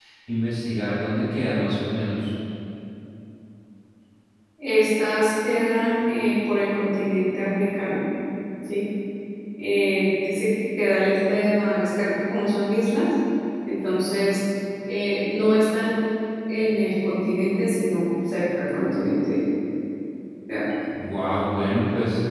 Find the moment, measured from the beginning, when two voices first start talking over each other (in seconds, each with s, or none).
none